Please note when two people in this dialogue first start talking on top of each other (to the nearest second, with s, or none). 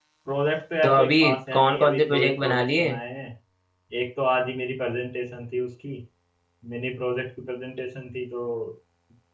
1 s